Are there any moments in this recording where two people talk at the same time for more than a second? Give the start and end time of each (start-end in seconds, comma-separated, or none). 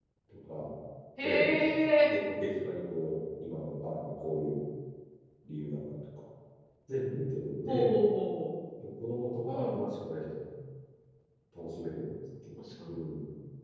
none